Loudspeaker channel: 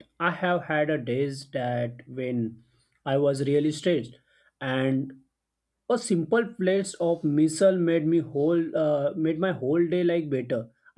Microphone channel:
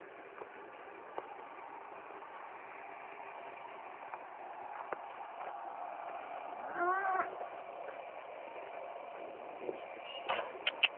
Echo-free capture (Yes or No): Yes